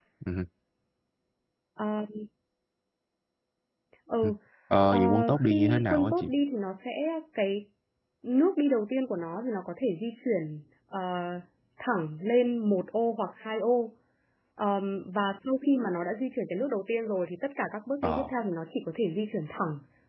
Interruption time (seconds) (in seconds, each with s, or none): 4.9 s